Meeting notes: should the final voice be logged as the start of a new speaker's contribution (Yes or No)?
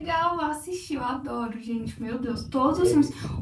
No